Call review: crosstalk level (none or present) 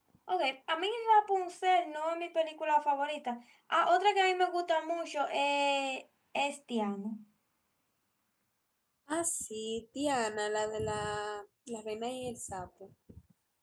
none